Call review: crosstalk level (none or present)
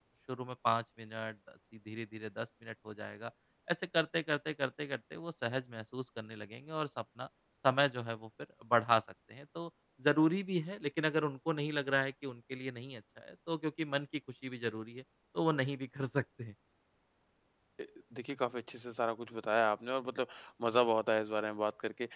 none